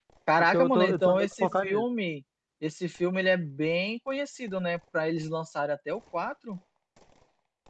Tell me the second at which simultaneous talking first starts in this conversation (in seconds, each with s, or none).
0.5 s